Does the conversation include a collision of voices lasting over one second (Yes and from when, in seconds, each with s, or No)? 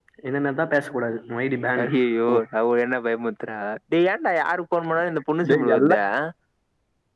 No